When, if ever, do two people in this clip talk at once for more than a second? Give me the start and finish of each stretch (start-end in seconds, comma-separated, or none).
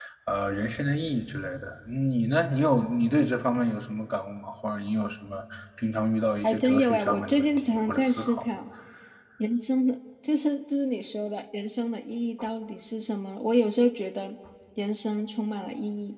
6.4-8.4